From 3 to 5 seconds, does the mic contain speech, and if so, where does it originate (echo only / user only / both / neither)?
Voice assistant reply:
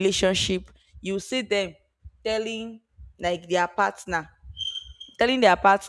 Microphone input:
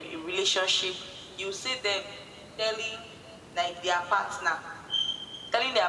echo only